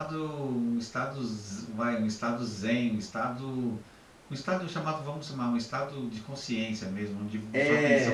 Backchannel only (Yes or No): Yes